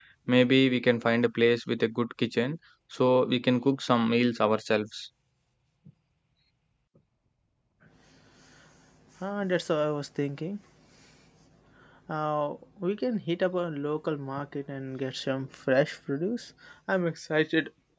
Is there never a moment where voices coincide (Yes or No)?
Yes